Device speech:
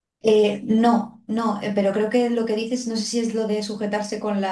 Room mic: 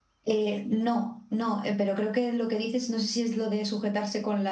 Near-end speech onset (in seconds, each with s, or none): none